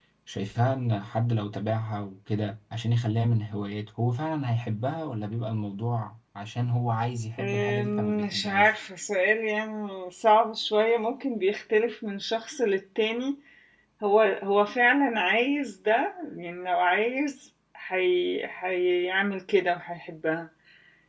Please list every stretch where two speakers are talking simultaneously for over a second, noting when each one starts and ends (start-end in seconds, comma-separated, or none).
7.4-8.8